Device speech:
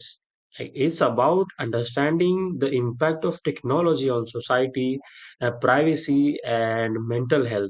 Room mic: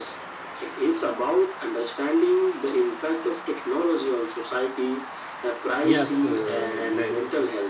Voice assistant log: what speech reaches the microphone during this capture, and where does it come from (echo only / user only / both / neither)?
both